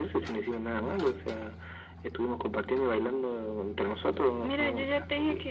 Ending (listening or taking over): taking over